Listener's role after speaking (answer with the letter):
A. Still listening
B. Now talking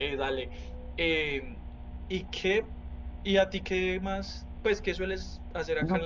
B